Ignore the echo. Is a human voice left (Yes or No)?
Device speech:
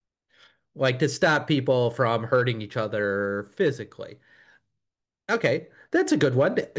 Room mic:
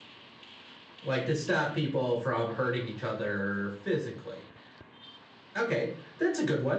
No